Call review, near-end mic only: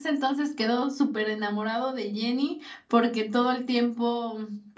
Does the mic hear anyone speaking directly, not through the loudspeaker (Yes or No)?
Yes